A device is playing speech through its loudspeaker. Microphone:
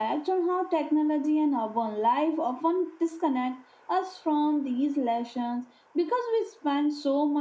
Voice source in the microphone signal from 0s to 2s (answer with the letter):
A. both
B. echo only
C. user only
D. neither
C